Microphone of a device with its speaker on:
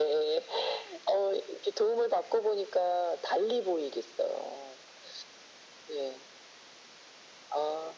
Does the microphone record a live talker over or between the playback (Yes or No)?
No